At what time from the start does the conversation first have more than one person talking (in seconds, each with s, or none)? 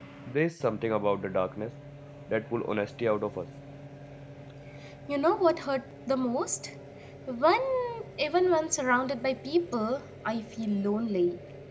none